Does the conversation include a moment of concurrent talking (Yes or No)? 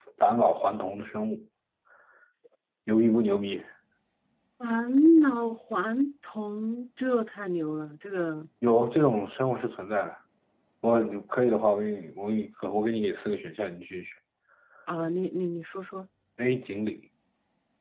No